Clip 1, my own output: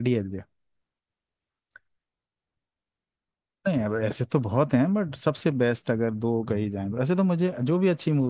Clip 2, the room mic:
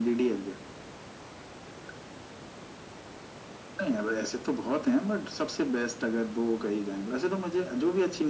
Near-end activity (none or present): none